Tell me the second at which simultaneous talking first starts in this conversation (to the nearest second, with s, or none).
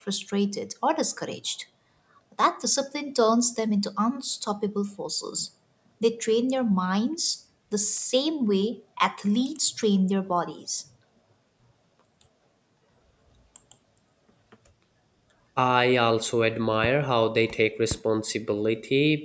none